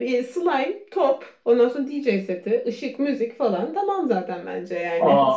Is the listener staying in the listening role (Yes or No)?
No